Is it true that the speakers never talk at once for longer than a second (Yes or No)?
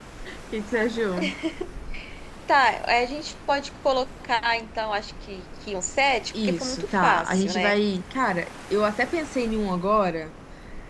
No